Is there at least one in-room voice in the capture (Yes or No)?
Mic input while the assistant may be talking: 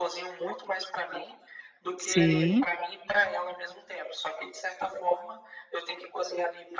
Yes